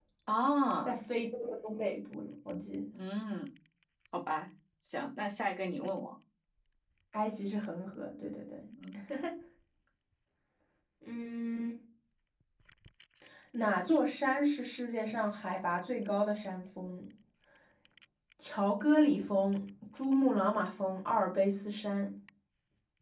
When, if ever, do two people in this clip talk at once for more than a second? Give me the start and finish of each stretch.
none

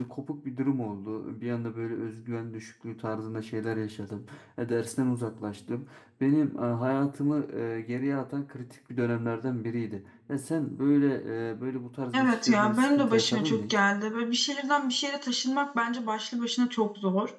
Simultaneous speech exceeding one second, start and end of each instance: 12.1-13.7

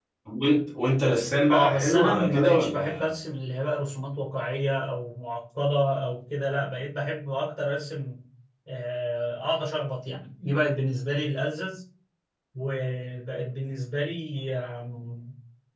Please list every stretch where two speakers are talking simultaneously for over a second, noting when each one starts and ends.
1.5-3.1

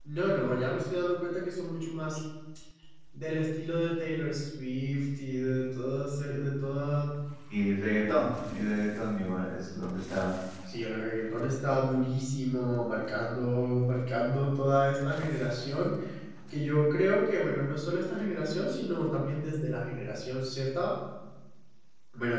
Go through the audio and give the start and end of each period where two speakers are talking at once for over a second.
none

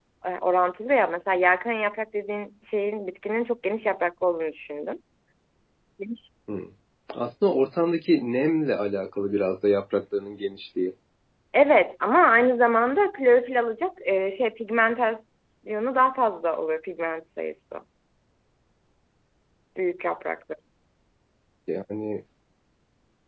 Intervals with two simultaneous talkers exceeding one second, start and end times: none

